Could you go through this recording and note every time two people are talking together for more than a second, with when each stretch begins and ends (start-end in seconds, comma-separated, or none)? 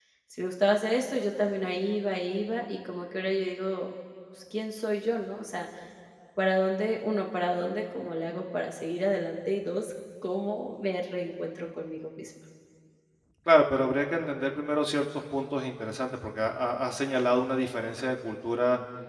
none